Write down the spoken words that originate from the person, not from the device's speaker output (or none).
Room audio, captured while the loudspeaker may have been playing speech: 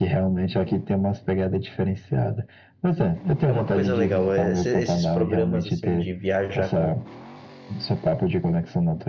É uma coisa legal, é, esse- esses programas assim de viajar com,